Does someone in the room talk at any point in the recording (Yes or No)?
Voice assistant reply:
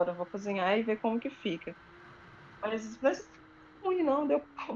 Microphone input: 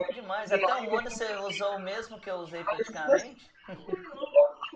Yes